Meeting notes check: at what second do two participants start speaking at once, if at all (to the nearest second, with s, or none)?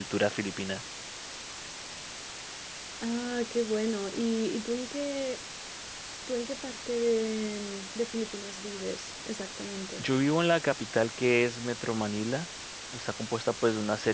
none